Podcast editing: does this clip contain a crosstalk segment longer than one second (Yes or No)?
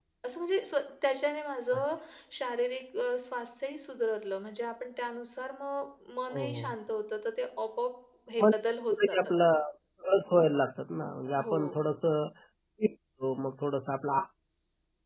No